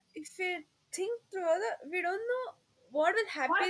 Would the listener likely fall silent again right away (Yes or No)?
No